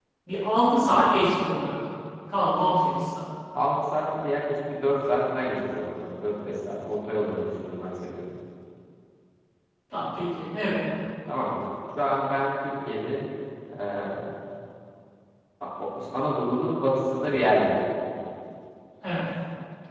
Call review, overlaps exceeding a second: none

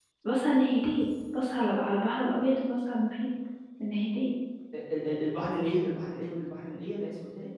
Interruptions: none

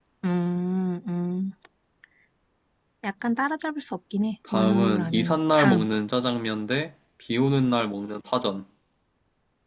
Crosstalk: present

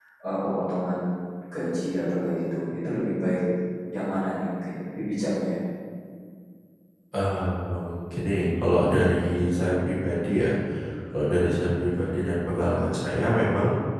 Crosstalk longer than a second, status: none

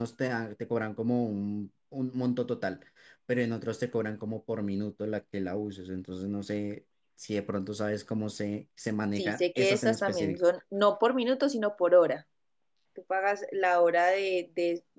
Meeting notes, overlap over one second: present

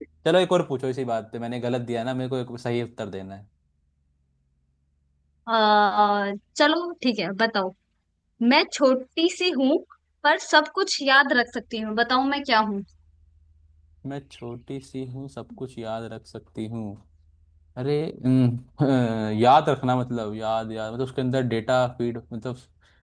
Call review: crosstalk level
none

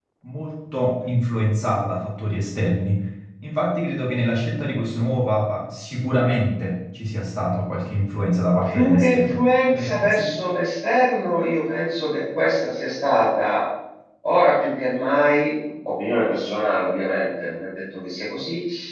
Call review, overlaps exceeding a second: present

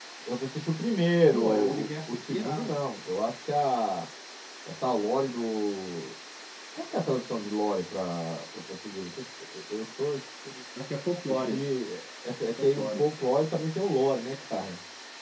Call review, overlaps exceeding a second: present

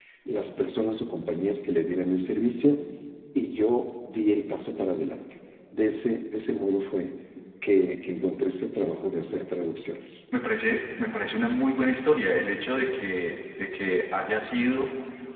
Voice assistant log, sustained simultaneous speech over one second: none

